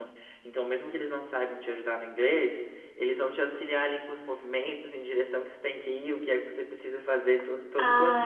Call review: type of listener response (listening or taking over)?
taking over